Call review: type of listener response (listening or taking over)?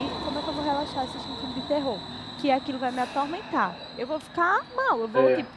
listening